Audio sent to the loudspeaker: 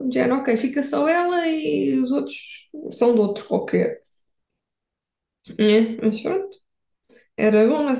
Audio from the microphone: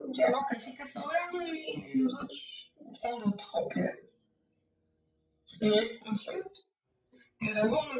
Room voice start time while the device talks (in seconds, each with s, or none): none